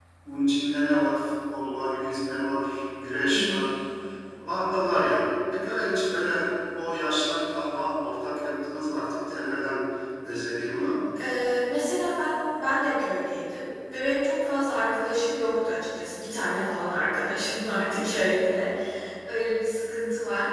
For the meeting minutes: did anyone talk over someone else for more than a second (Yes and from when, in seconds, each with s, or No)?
No